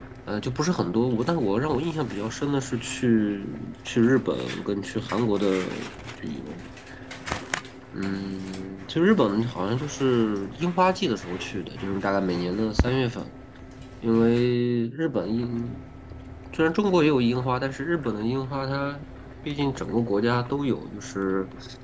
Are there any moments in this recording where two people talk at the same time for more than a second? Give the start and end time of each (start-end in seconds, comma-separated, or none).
none